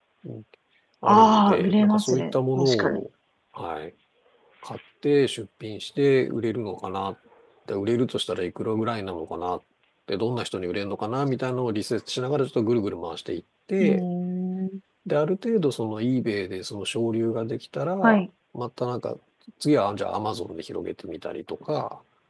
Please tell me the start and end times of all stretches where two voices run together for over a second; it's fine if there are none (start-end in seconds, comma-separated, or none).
1.0-3.0